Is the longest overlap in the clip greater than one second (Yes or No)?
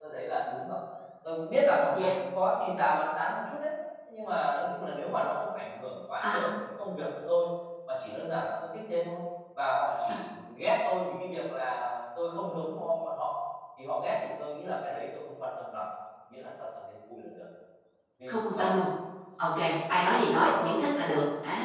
No